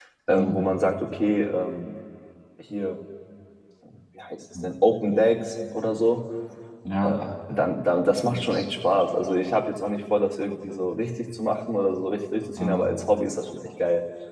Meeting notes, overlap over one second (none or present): none